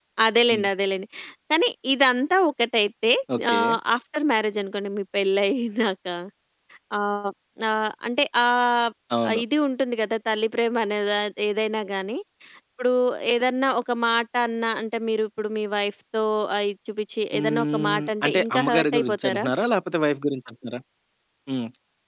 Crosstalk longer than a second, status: present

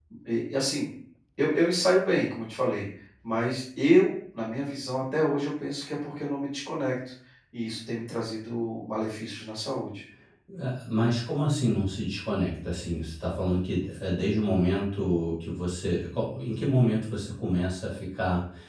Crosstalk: none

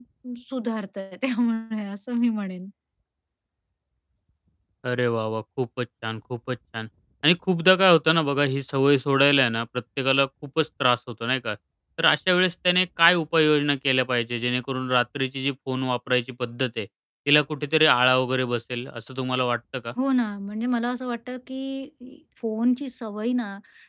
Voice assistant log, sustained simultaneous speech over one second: none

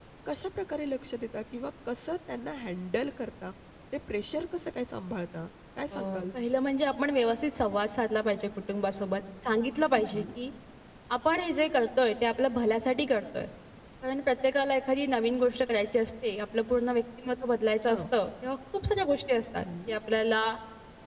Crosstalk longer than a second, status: none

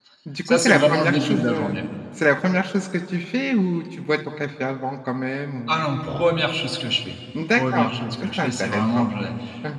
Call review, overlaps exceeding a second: present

